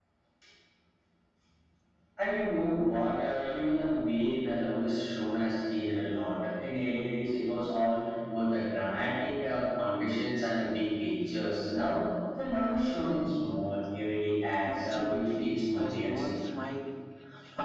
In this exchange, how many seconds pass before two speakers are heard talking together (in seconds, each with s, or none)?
14.6 s